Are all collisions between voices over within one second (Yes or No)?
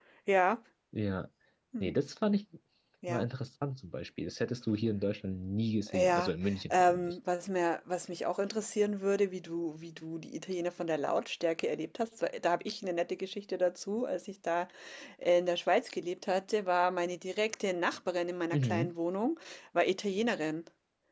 Yes